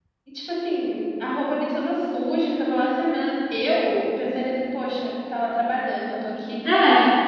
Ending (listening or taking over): listening